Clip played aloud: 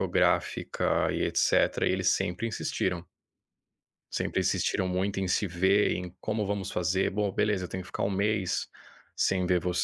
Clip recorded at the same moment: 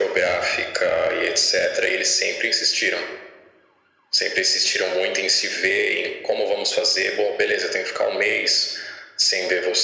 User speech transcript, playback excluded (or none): none